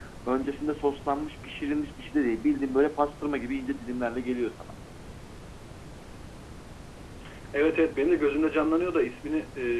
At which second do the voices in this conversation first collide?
none

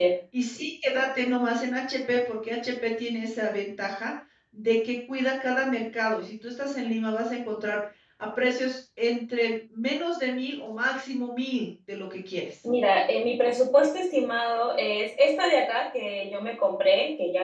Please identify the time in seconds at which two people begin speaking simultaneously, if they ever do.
none

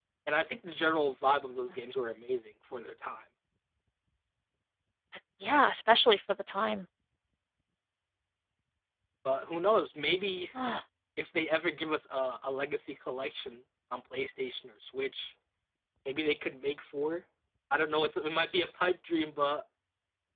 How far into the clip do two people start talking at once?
none

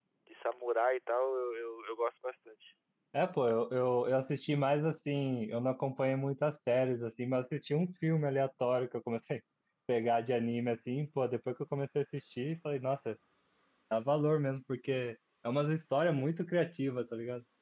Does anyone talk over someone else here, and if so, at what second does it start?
none

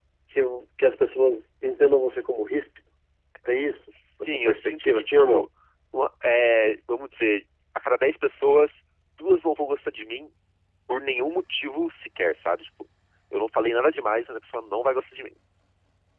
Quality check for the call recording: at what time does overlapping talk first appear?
4.2 s

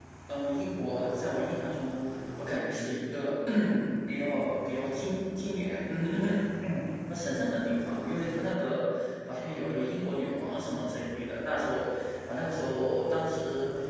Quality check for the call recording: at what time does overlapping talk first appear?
none

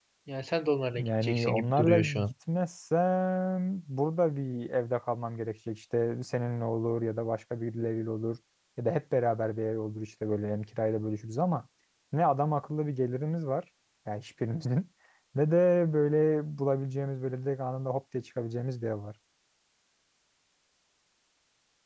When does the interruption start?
1.0 s

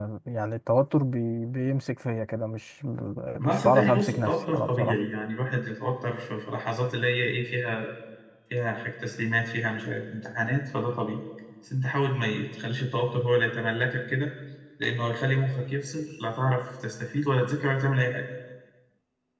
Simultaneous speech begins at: 3.5 s

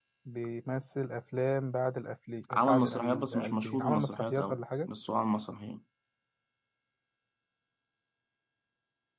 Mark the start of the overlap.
2.5 s

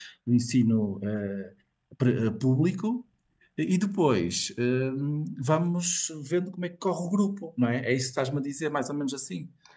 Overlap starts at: none

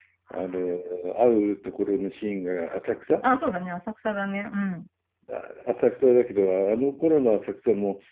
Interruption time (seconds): none

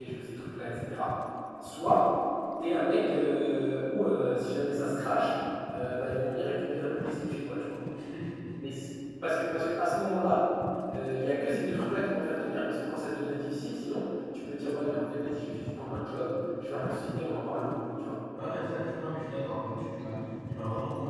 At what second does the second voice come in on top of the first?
none

